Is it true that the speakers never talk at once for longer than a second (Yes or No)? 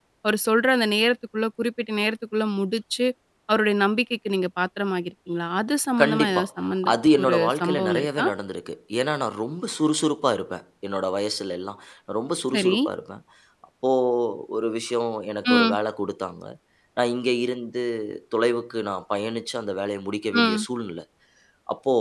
No